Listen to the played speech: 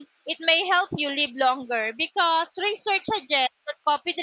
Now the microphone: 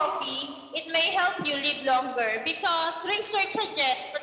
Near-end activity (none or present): none